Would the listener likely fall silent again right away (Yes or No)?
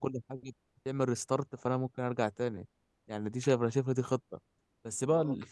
Yes